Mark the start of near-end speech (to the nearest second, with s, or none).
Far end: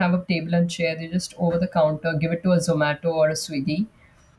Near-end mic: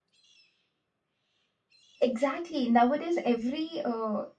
2 s